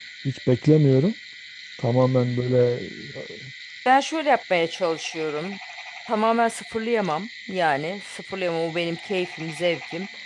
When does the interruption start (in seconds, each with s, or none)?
none